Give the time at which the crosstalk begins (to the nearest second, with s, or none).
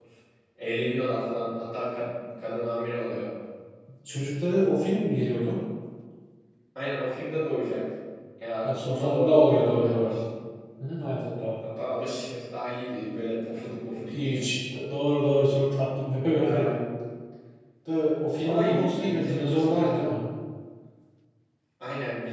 9 s